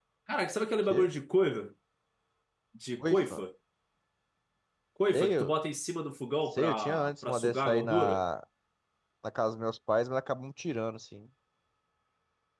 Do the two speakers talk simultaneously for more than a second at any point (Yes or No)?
Yes